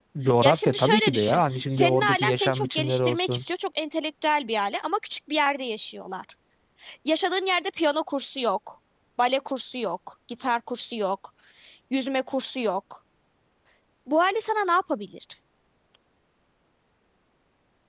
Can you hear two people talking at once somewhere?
Yes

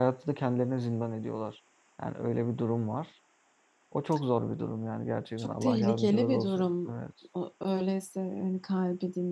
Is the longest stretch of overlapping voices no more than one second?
No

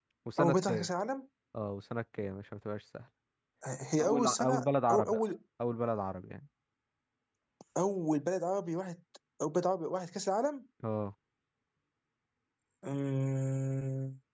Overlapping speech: Yes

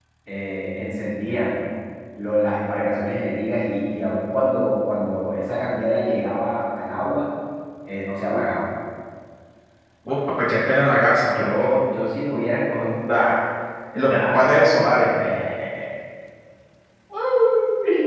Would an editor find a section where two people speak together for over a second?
No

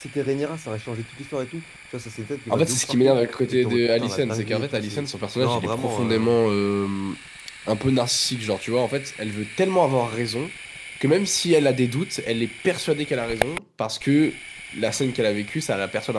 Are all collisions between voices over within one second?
No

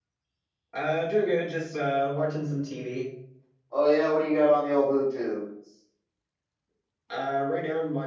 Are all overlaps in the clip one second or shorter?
Yes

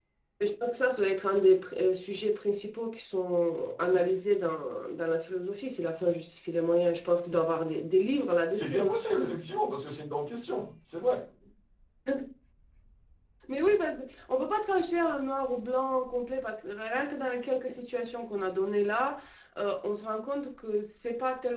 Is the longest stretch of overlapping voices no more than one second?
Yes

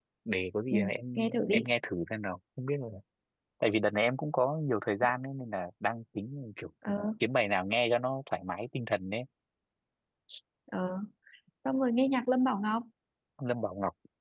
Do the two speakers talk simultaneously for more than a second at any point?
No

